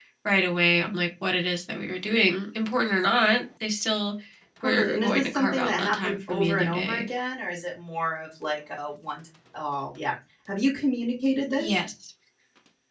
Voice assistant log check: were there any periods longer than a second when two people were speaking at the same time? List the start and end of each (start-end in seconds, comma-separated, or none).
4.6-7.1